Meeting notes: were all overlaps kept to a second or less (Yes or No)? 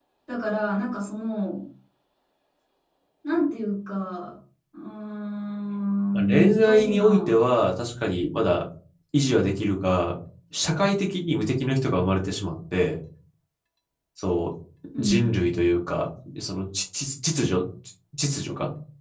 No